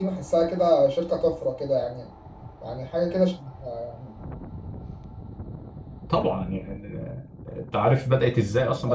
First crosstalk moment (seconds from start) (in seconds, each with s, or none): none